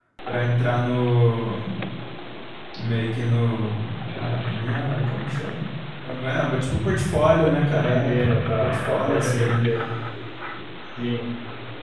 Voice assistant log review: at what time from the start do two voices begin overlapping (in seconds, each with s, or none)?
7.7 s